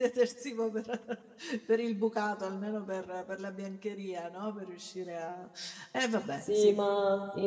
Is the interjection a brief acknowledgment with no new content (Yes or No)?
No